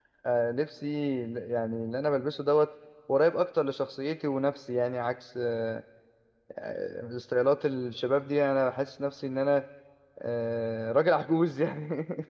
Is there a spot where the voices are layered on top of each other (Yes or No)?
No